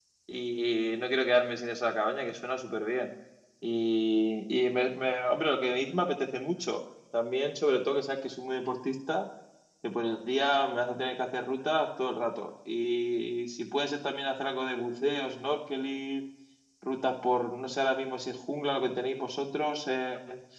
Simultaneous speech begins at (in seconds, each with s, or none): none